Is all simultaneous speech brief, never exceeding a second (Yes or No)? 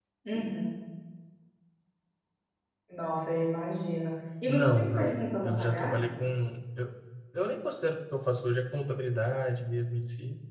No